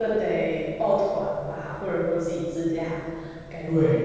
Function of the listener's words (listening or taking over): taking over